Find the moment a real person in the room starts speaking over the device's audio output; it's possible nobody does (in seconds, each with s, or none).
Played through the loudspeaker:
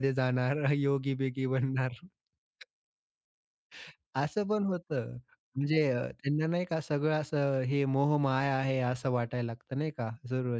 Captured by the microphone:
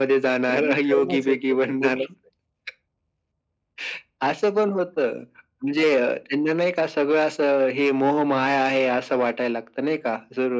0.5 s